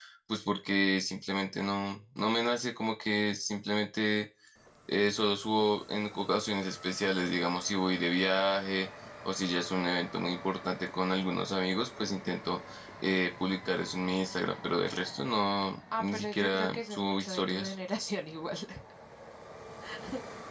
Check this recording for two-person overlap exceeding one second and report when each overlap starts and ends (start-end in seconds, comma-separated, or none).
16.0-17.7